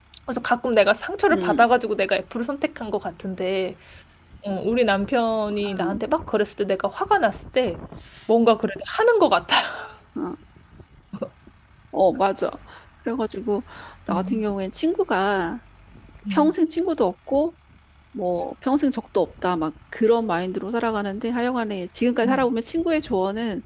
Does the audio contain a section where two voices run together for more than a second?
No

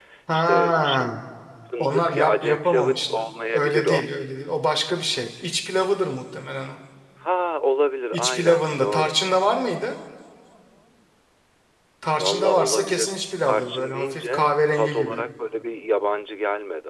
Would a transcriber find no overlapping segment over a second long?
No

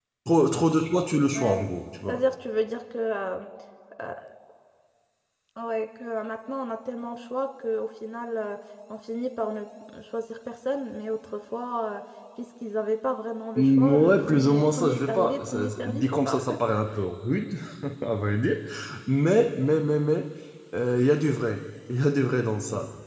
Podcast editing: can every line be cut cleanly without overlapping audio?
No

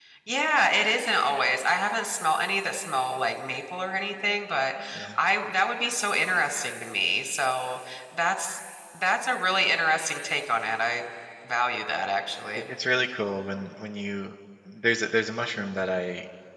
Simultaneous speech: No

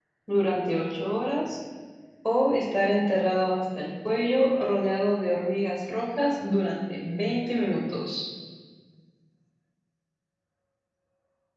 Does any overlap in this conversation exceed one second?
No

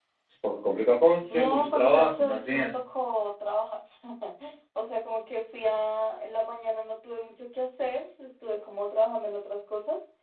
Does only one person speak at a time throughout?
No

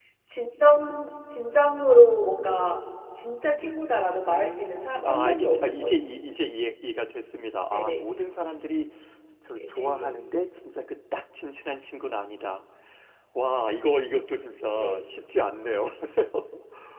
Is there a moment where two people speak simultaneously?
Yes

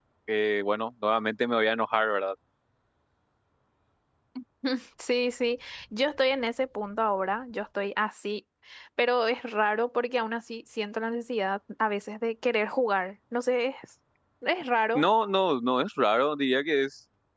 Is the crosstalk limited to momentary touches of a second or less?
Yes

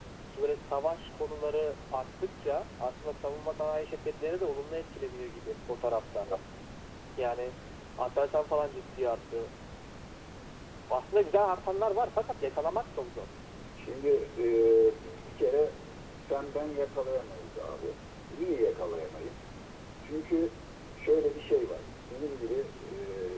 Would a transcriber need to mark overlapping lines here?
No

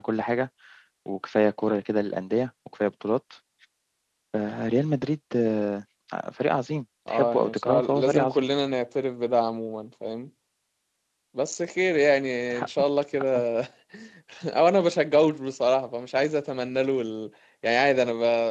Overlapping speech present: Yes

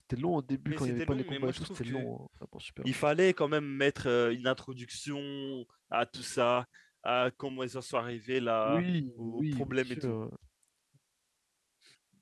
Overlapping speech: Yes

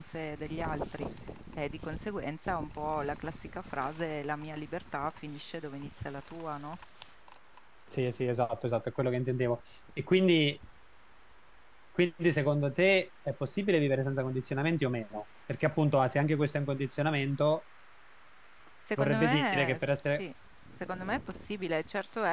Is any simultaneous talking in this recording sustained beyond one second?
Yes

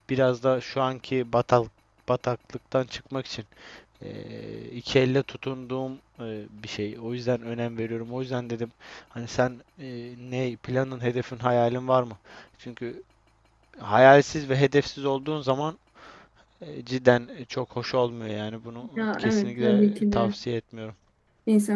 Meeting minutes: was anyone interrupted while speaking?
Yes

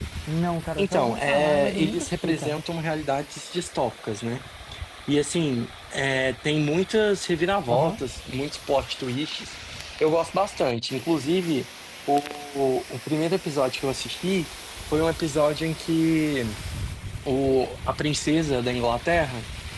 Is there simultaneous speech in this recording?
Yes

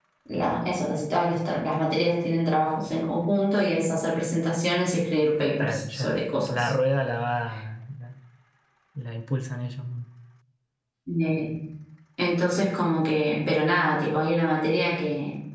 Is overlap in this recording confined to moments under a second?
Yes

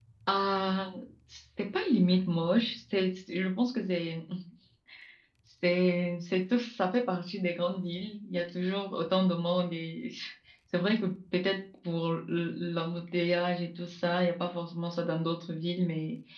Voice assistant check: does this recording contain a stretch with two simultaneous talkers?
No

